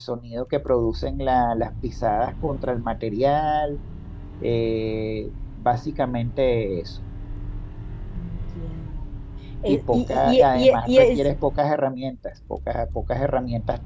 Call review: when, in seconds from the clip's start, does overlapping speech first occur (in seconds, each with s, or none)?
9.7 s